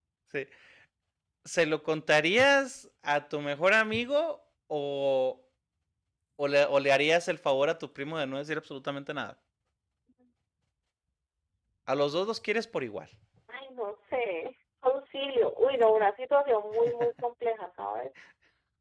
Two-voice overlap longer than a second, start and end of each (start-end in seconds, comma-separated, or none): none